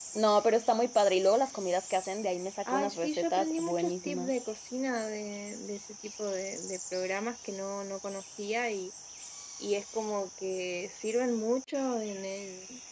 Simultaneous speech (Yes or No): Yes